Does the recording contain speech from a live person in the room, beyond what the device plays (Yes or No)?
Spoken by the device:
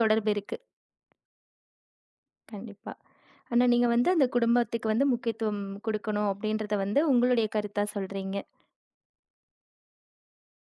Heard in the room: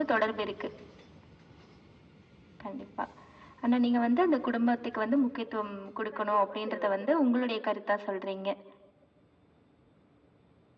Yes